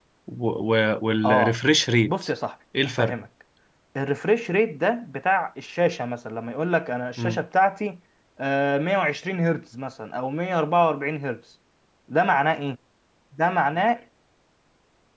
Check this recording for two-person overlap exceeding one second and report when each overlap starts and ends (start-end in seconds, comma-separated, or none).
none